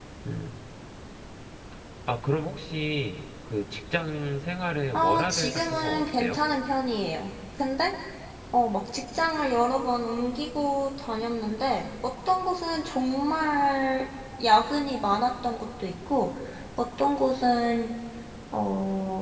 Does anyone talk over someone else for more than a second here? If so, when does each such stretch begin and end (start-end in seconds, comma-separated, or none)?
4.9-6.4